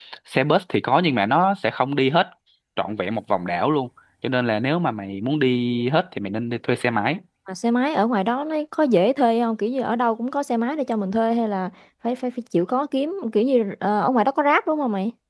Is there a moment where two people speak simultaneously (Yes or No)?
No